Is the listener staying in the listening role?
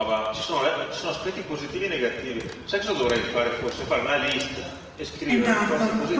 No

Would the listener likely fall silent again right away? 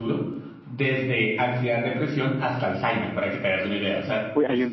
No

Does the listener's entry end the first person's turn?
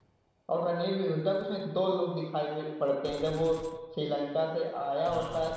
No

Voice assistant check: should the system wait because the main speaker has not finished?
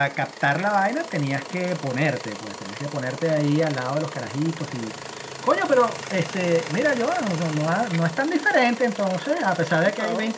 No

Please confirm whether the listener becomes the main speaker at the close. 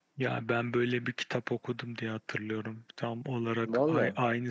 No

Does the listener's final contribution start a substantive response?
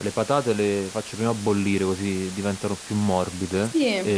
No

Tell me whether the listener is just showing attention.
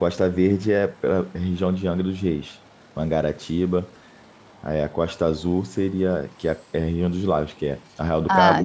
Yes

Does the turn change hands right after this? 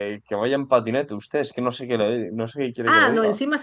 Yes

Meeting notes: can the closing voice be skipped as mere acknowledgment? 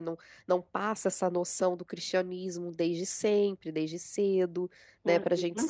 Yes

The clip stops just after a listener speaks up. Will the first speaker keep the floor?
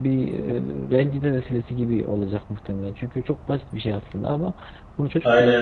Yes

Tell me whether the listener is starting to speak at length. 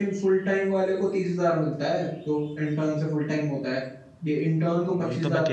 Yes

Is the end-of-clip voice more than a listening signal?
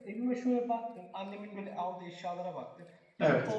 No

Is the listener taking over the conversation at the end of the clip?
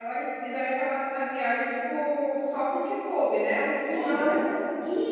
Yes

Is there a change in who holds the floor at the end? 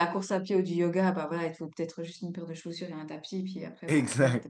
Yes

